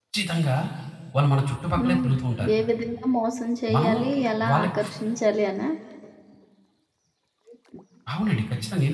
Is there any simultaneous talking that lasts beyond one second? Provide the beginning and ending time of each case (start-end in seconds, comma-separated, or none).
none